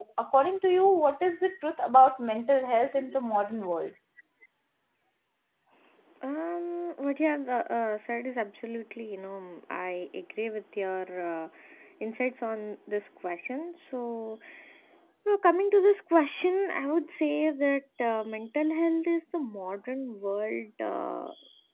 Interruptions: none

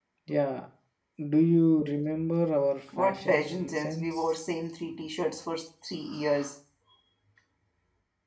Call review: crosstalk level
present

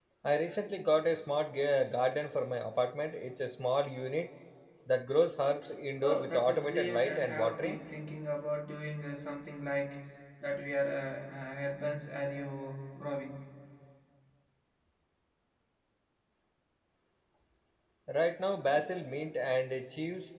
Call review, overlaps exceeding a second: present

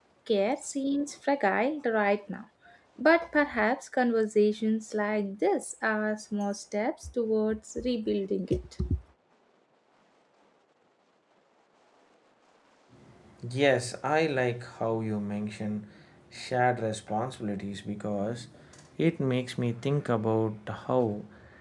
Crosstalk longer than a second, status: none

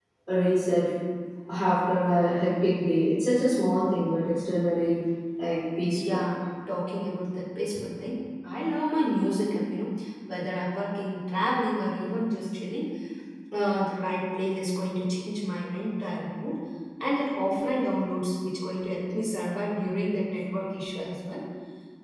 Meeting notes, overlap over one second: none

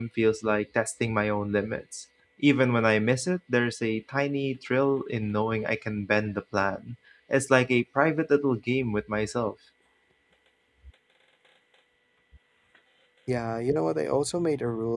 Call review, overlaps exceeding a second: none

